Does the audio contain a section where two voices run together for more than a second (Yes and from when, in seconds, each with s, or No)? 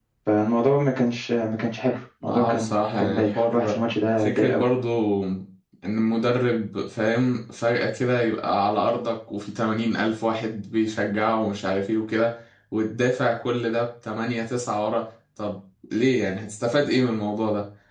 Yes, from 2.3 s